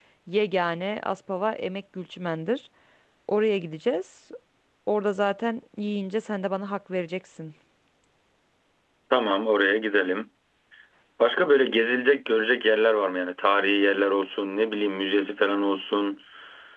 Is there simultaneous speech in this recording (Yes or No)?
No